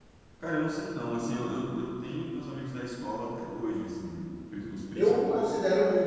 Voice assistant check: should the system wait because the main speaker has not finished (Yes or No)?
No